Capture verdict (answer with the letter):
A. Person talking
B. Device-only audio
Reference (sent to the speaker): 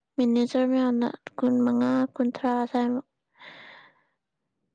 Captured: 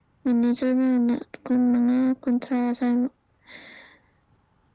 B